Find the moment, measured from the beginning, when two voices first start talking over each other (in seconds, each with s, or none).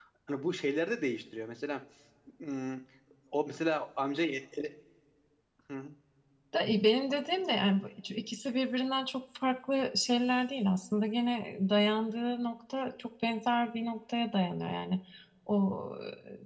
none